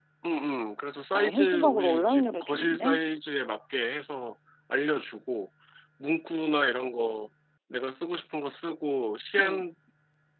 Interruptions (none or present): present